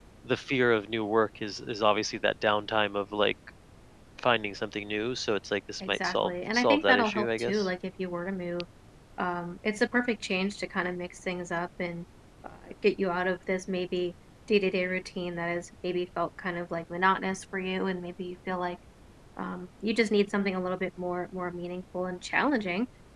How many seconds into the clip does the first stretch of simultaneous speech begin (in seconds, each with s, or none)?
5.8 s